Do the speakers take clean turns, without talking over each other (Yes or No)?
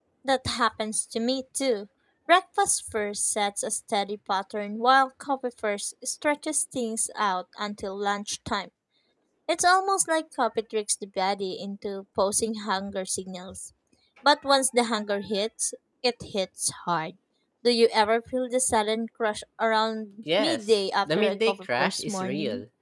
No